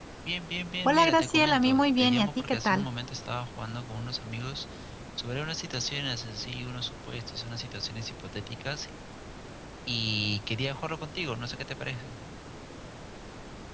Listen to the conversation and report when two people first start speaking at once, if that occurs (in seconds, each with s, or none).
0.8 s